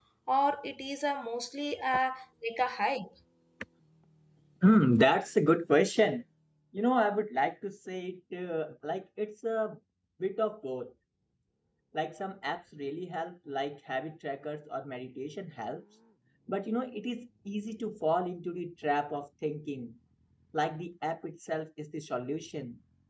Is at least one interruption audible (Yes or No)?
No